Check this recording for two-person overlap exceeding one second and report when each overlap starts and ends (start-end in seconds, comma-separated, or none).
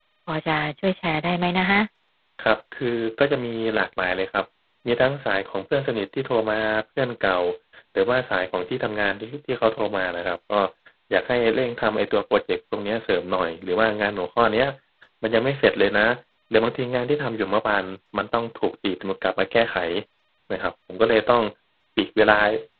none